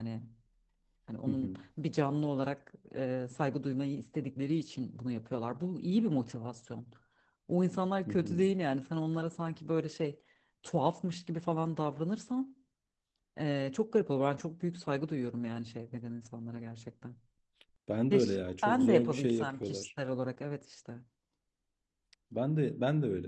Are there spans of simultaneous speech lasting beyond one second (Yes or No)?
Yes